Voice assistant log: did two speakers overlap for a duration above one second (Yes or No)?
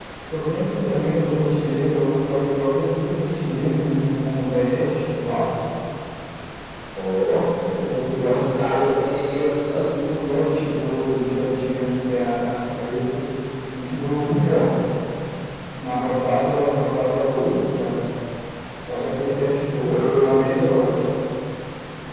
No